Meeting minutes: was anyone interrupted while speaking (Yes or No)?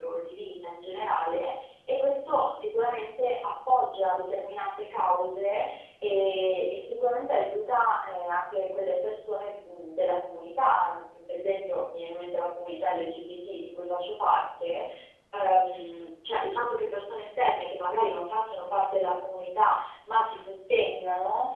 No